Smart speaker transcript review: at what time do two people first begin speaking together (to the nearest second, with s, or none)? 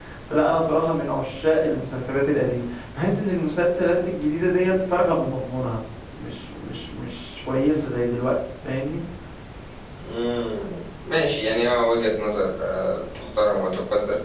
none